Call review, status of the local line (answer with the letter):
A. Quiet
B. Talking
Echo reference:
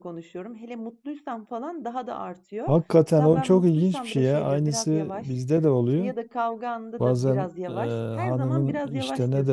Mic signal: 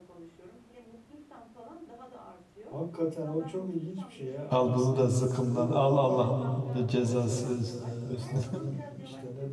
B